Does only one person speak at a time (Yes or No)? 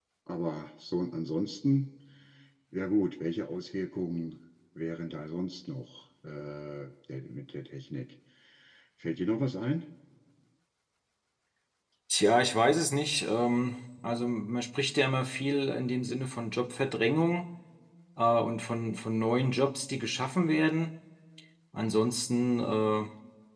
Yes